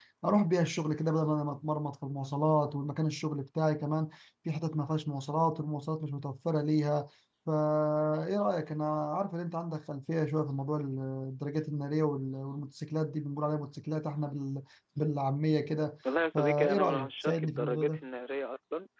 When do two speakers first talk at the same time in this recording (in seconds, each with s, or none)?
16.4 s